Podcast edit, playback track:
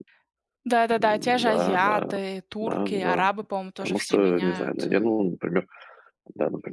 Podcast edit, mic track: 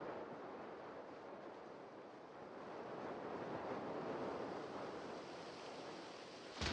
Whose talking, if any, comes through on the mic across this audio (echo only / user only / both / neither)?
neither